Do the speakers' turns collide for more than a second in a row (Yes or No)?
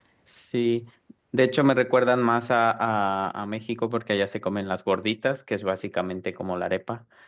No